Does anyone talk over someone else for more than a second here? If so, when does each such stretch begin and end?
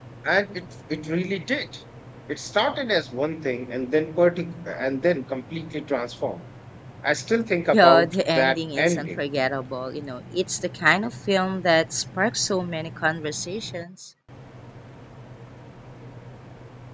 7.7-9.2

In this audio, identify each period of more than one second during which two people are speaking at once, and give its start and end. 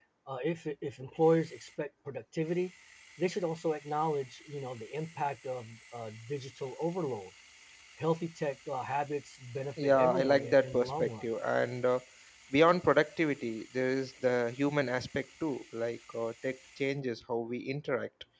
9.8-11.2

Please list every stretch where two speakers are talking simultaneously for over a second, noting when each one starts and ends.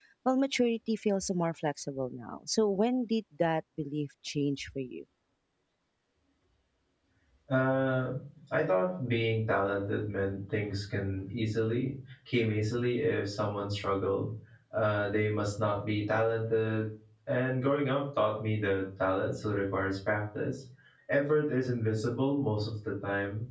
none

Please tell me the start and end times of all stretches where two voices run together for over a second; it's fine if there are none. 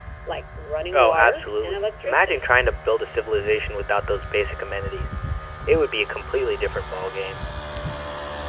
0.9-2.4

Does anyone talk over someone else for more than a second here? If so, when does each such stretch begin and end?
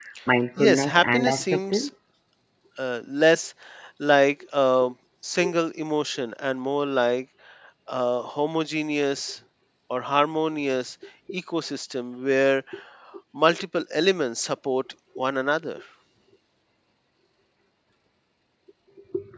0.6-1.9

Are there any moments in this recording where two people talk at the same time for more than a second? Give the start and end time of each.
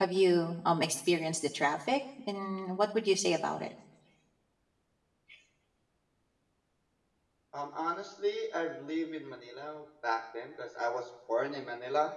none

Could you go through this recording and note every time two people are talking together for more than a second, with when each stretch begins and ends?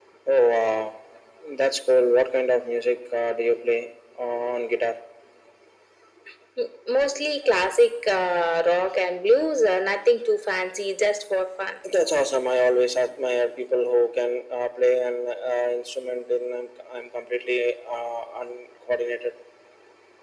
none

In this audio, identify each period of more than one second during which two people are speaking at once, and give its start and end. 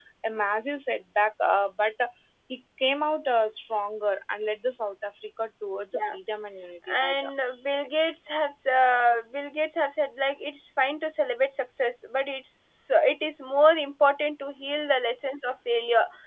none

